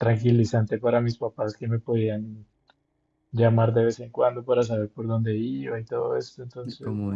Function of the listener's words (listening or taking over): listening